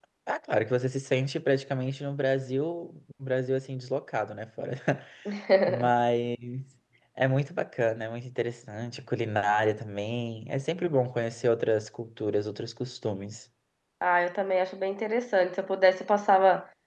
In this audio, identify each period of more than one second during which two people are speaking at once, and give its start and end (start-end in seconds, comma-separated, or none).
none